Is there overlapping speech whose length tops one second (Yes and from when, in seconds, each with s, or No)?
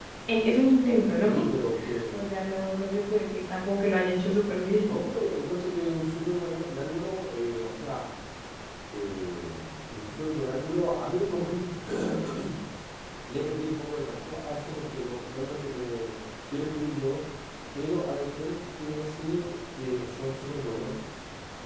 No